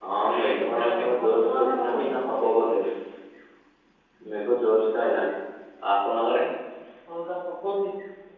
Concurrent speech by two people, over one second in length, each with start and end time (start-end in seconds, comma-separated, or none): 0.6-2.1